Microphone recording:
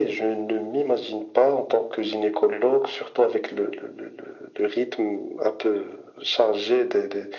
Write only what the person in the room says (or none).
none